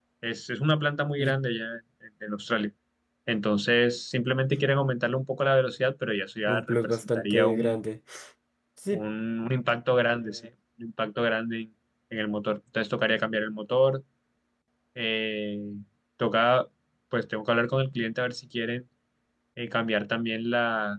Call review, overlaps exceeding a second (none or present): present